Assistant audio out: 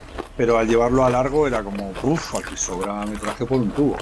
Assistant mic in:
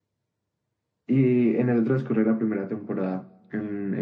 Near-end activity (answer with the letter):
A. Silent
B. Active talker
B